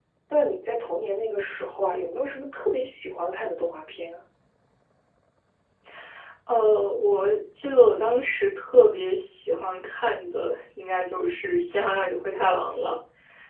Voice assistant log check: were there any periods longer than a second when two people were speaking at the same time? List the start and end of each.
none

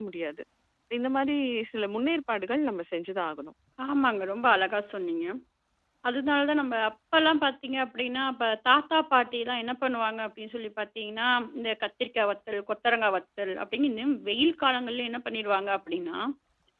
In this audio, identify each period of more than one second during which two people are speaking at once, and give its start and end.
none

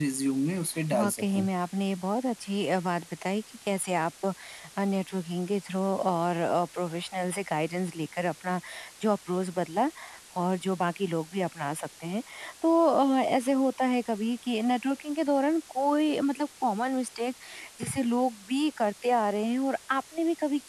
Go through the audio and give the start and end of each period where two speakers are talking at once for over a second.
none

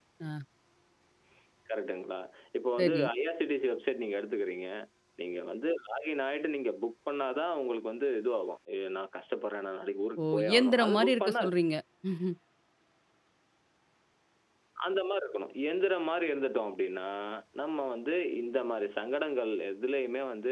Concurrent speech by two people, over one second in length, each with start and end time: 10.2-11.6

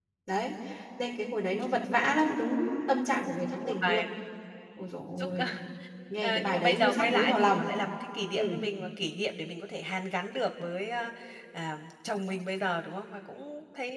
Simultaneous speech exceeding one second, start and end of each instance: 6.2-7.6

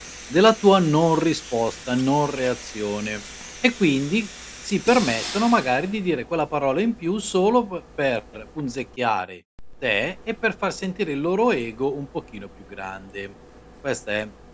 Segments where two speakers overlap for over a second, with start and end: none

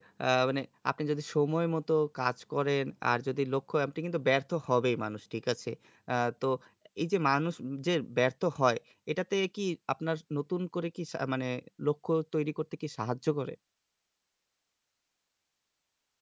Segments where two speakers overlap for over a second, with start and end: none

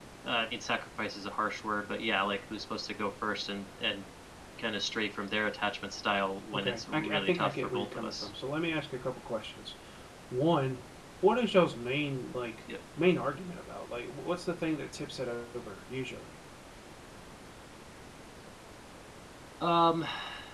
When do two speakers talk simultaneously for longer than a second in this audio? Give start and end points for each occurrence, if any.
6.5-8.3

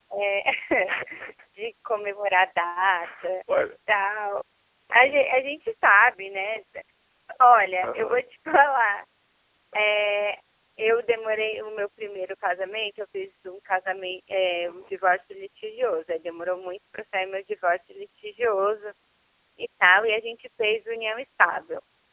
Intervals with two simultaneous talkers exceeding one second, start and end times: none

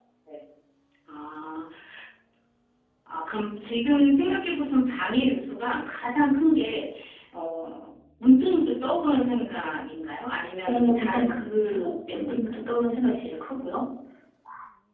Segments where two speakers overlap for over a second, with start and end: 10.6-12.6

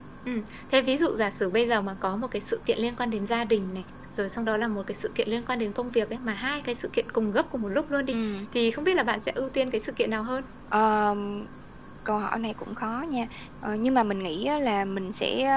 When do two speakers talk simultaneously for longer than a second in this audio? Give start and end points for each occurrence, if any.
none

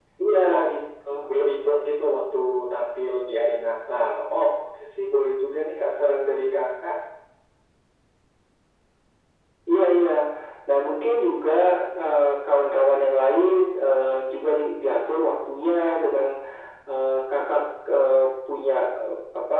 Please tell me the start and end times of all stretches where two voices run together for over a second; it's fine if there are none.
none

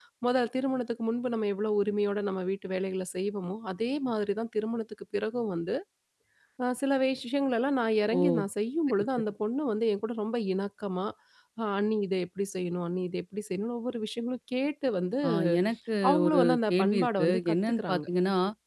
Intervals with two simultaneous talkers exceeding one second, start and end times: 16.1-18.0

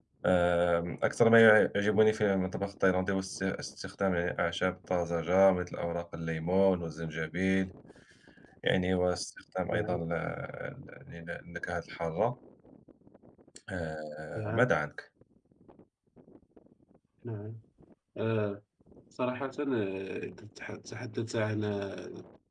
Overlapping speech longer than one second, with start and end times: none

